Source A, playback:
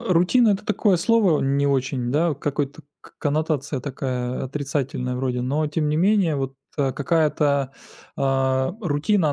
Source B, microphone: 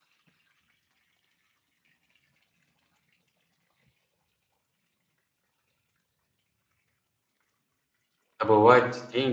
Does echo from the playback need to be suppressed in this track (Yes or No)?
No